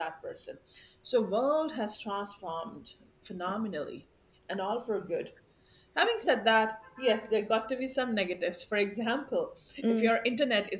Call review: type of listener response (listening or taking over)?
listening